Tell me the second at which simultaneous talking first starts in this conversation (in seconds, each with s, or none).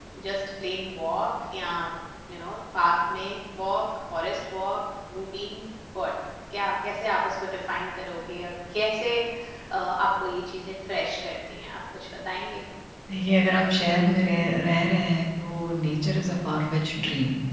none